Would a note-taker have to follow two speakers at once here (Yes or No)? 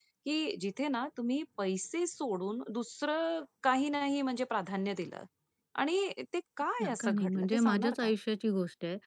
Yes